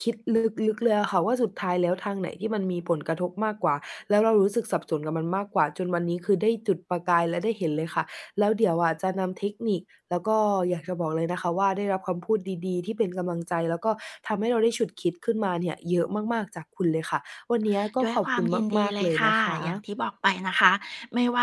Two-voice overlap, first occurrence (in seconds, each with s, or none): 18.0 s